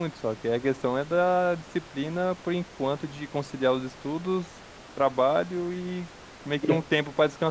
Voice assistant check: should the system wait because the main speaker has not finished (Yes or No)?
Yes